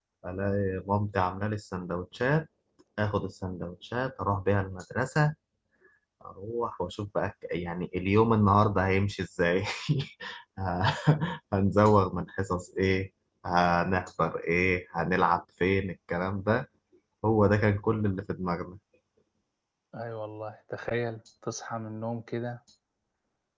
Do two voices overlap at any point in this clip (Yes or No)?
No